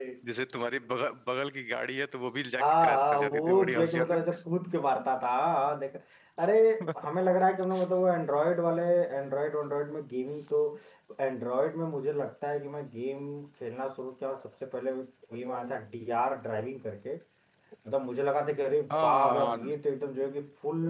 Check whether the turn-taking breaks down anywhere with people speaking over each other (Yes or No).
Yes